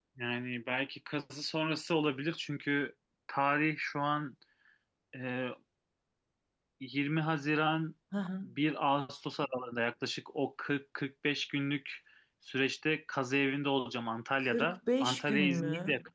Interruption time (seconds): 14.4 s

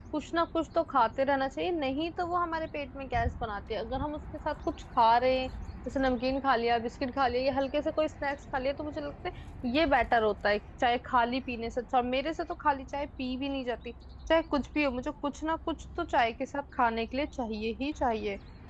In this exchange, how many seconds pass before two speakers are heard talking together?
none

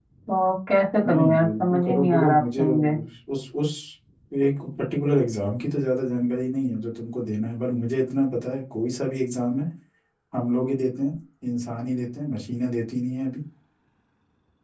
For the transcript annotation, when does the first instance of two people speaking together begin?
1.1 s

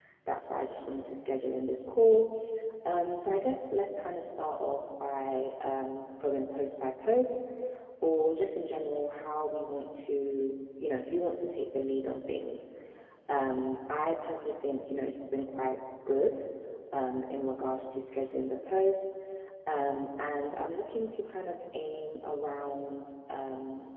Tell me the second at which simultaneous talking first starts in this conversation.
none

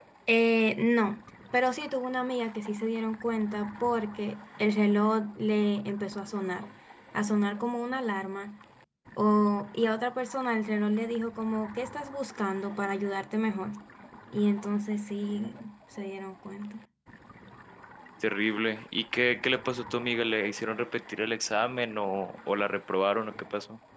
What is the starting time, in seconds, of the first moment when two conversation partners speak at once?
none

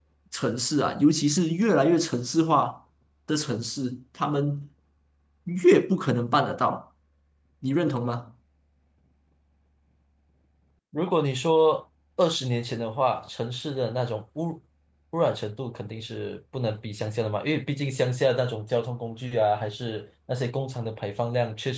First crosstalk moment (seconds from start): none

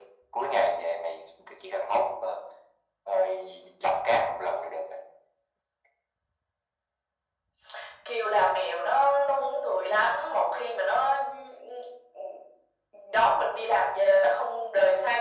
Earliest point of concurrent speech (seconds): none

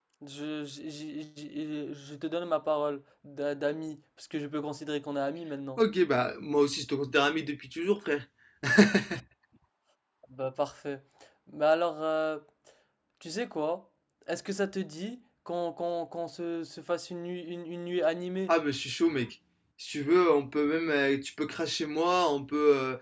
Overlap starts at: none

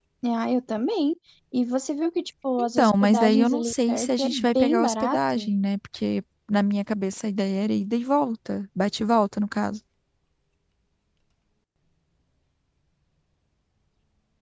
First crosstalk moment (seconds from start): 2.6 s

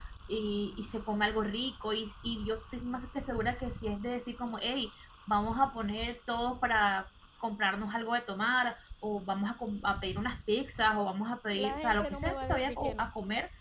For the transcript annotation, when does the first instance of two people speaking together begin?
11.5 s

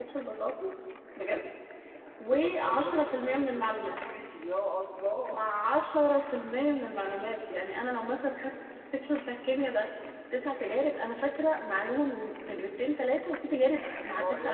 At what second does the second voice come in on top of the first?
2.2 s

